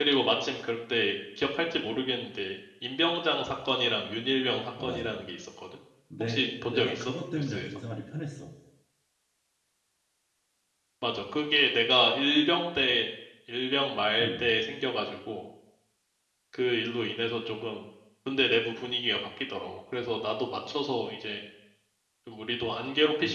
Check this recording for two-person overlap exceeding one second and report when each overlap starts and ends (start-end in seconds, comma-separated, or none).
6.2-7.6